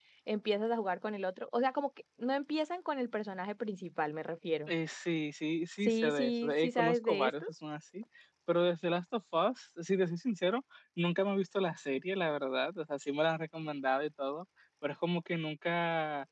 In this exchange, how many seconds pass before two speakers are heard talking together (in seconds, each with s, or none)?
5.8 s